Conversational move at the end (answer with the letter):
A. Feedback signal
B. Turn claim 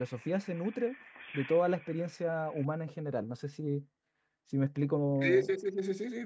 B